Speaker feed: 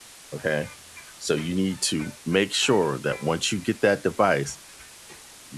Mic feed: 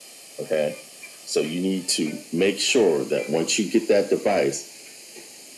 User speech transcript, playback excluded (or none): none